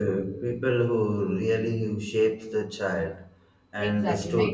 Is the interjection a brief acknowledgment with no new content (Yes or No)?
No